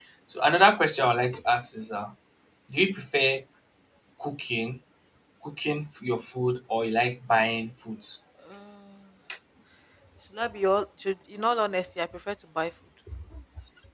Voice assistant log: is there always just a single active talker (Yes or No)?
Yes